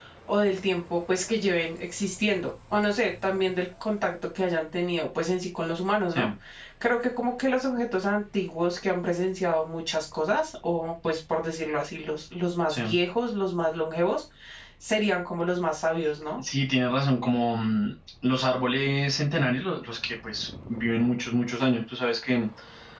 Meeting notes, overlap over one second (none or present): none